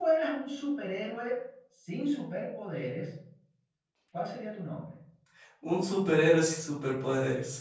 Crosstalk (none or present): none